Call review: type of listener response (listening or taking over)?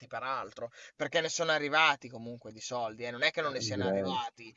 listening